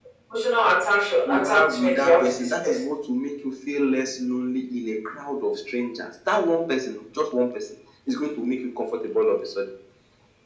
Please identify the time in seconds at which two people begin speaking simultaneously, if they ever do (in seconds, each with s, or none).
1.3 s